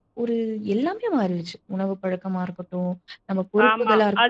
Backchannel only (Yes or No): No